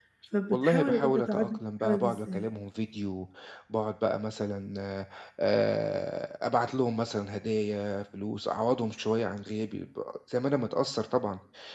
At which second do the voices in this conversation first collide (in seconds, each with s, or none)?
0.5 s